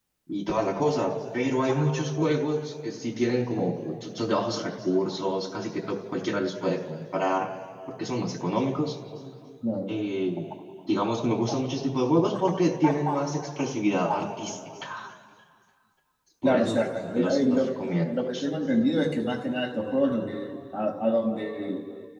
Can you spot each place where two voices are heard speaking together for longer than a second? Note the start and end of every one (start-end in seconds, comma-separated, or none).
16.4-18.1